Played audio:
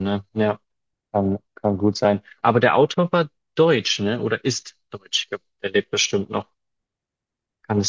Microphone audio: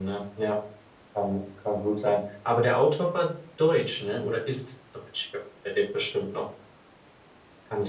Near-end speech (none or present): none